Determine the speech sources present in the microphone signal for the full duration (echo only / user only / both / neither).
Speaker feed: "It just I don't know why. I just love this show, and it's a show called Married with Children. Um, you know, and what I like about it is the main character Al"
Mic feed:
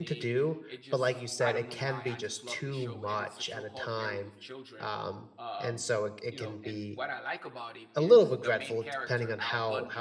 both